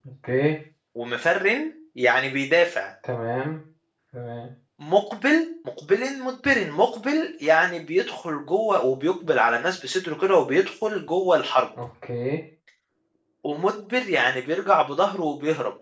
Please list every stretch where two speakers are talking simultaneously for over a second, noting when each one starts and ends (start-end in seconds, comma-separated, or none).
none